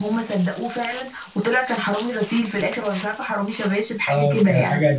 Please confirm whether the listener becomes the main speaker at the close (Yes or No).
Yes